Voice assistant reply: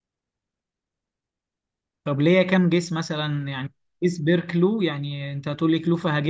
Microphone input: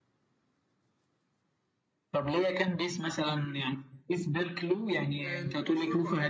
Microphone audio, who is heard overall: both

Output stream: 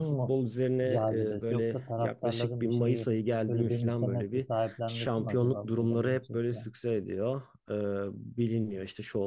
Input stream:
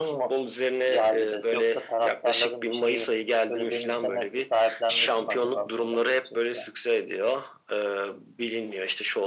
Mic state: echo only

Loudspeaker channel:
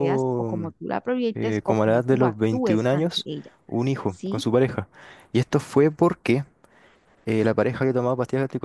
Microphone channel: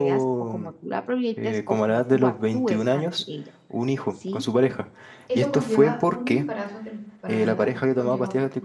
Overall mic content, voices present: both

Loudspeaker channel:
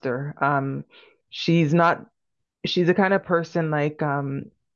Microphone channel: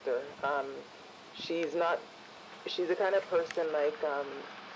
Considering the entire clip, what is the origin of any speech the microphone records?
echo only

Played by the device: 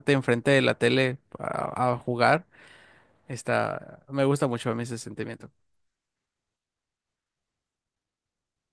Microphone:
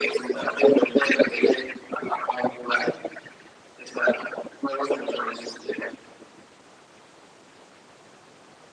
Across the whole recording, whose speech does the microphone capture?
echo only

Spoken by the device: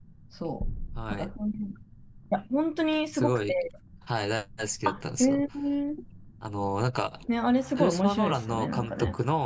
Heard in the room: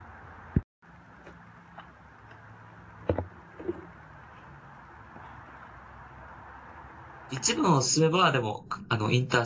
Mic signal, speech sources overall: user only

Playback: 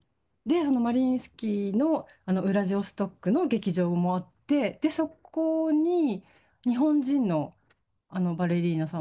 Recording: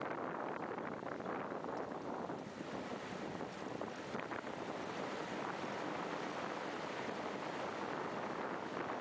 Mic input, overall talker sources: neither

